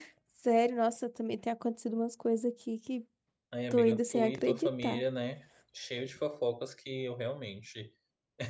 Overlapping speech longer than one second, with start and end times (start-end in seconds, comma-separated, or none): 3.7-5.0